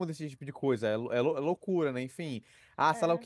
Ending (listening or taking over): listening